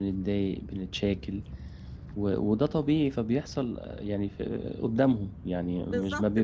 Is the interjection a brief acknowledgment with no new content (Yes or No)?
No